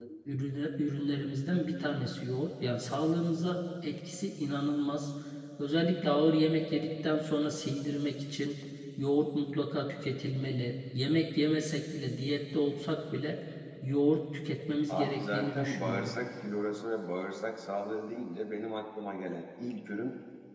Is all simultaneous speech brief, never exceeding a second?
No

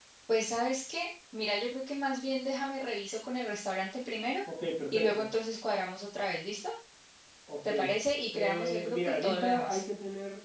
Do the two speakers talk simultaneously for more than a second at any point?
Yes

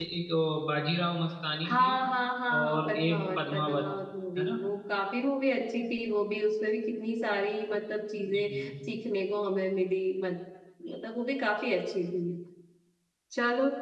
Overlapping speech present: Yes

